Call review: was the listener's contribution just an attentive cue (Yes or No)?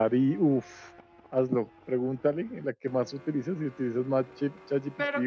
No